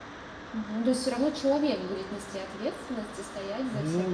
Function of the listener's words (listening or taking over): taking over